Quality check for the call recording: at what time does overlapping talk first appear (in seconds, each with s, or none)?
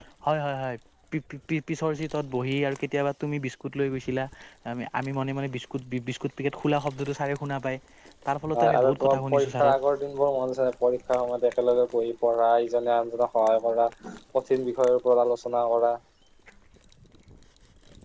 8.5 s